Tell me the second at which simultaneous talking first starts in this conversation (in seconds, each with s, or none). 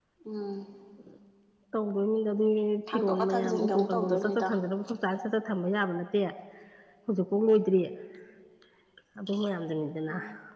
2.9 s